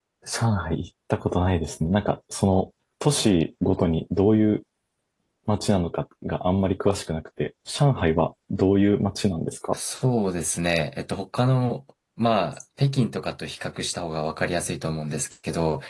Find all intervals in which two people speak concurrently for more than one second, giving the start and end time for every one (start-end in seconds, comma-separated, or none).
none